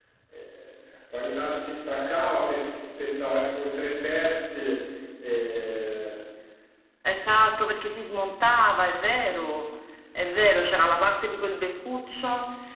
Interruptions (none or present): none